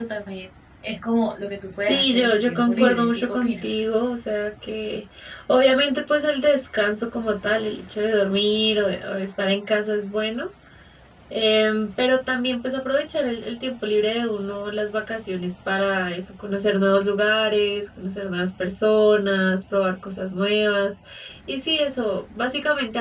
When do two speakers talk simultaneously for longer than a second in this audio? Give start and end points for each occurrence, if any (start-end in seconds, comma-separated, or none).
1.9-3.8